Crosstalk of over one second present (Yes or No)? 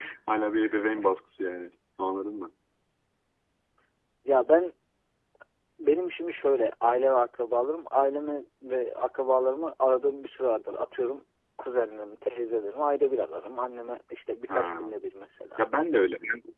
No